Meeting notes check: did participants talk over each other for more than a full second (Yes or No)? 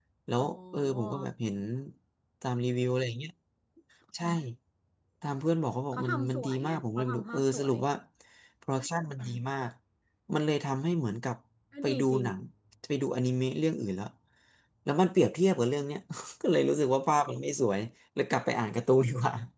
Yes